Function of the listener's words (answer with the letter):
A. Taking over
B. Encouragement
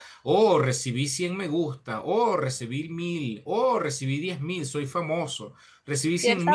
A